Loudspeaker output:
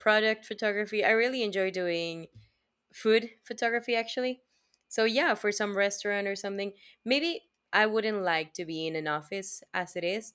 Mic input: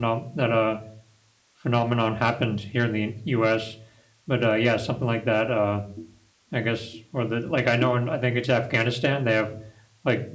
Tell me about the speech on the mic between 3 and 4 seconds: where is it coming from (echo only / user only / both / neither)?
user only